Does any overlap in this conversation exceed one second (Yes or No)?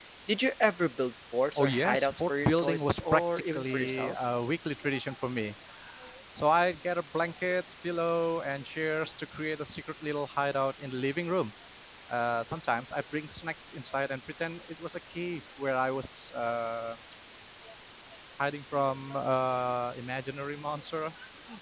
Yes